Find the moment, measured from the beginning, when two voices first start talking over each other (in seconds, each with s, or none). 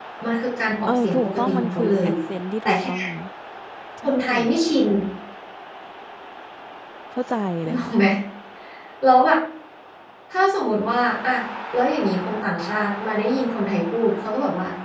0.9 s